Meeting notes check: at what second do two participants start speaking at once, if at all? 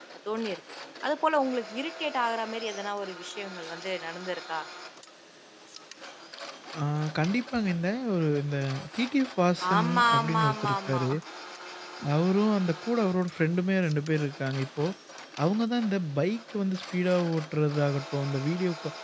10 s

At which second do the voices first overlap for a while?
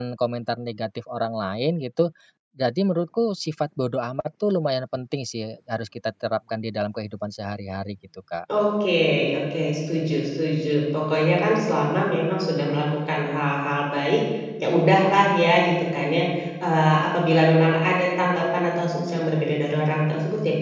none

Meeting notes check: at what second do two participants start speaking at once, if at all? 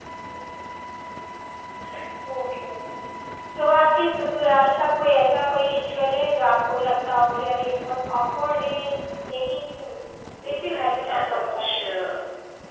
10 s

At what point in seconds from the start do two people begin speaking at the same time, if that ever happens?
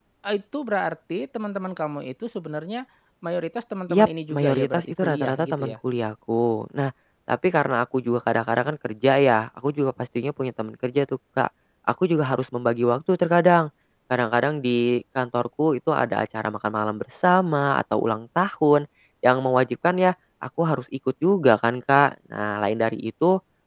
4 s

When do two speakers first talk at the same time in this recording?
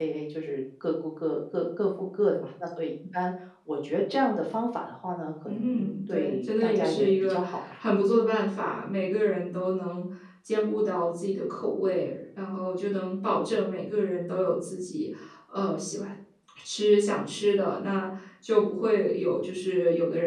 5 s

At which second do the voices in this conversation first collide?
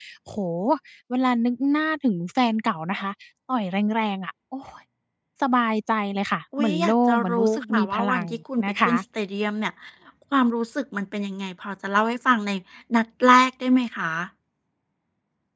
7 s

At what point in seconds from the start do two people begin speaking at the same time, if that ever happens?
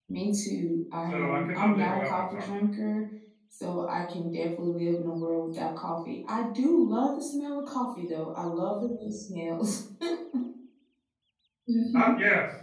1 s

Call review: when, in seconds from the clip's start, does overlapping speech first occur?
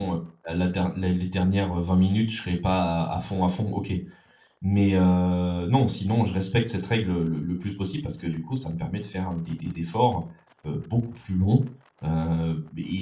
none

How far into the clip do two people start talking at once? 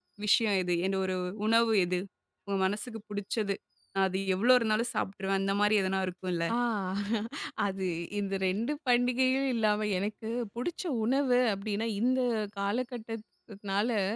none

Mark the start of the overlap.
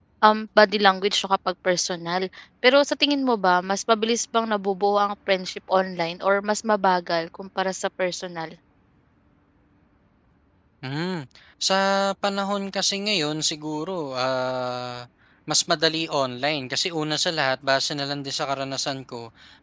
none

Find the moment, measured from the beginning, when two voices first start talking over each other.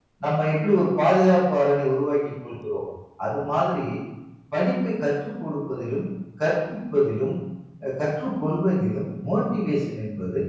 none

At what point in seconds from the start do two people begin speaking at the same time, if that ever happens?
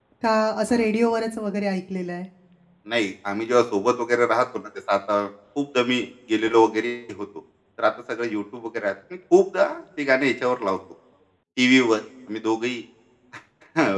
none

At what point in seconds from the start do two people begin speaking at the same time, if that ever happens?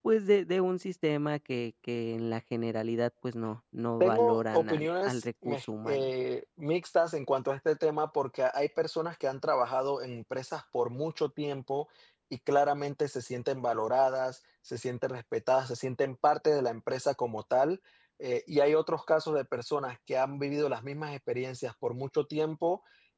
4 s

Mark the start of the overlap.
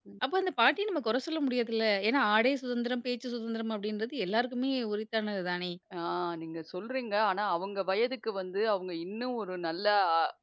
none

